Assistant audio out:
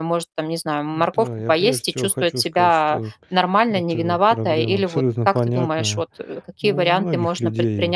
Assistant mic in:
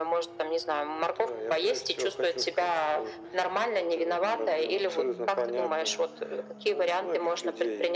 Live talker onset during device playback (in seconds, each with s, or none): none